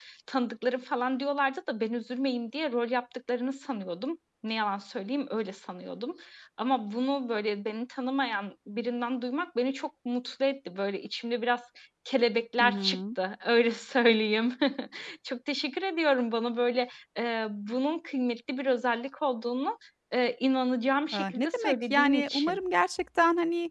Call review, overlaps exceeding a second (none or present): present